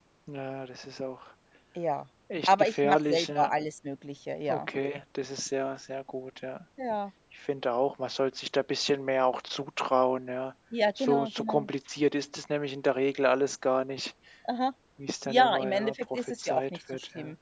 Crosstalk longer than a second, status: present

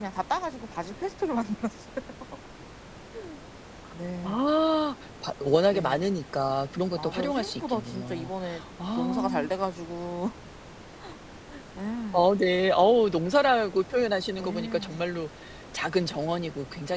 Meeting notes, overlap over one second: present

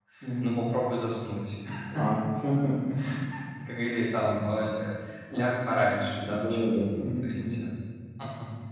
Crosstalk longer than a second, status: present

